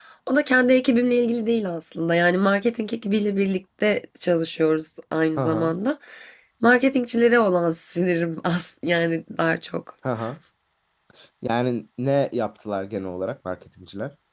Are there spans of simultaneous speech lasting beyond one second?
No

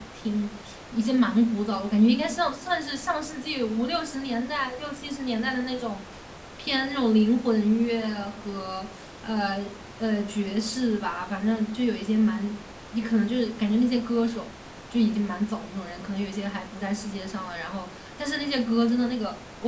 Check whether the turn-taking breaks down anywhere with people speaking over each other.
No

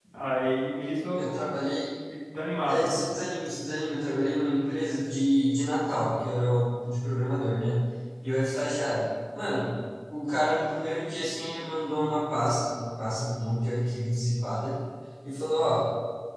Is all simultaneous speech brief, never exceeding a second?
Yes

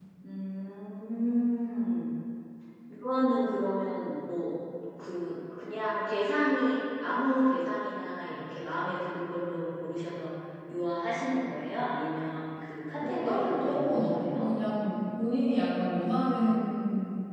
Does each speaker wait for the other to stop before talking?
No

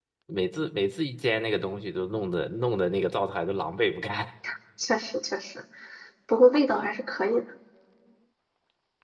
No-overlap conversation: Yes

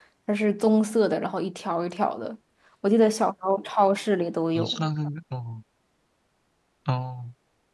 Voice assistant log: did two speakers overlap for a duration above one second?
No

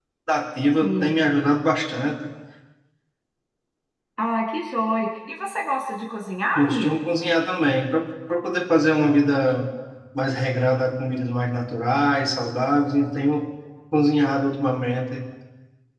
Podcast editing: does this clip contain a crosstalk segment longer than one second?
No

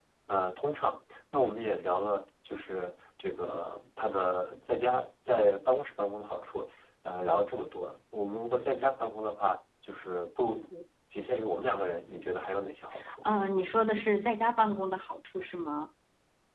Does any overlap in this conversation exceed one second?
No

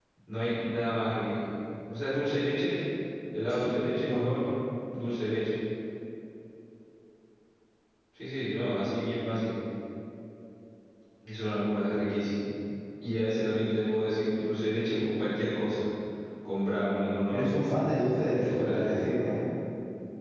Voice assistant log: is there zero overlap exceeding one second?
No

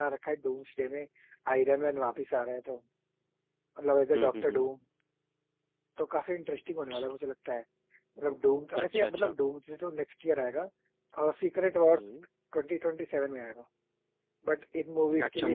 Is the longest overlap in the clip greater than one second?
No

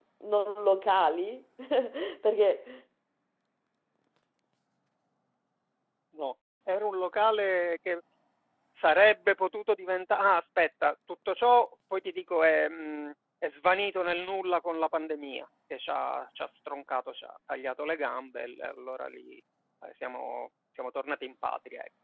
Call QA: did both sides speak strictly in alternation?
Yes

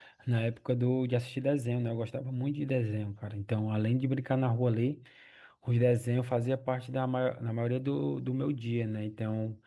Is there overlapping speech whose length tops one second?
No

